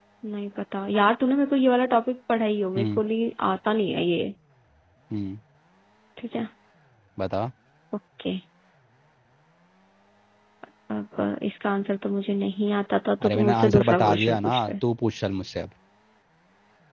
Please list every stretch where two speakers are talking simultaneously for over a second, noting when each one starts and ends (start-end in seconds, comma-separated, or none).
13.2-14.7